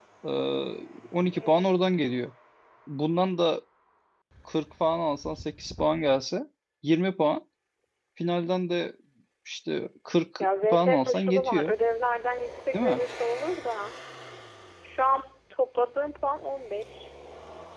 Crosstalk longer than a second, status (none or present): present